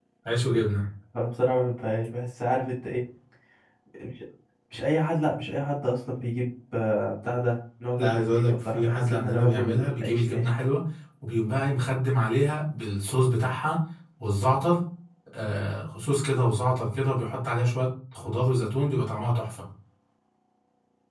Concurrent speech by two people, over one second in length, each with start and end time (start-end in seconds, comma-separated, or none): 8.0-10.5